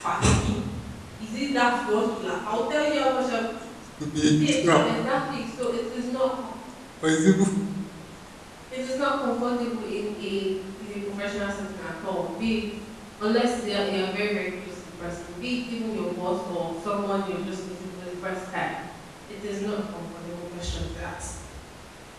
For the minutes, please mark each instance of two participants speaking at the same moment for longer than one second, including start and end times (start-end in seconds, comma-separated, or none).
none